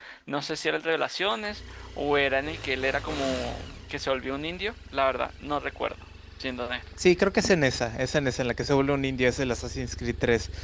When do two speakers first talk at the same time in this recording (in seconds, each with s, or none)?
none